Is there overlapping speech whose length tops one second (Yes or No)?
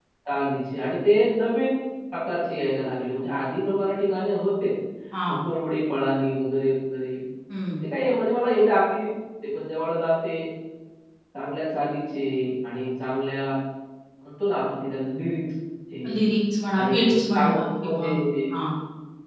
Yes